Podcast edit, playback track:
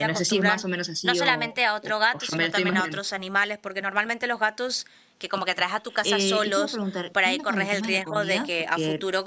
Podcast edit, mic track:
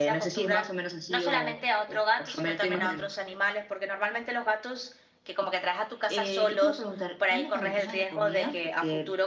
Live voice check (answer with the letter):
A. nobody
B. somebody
A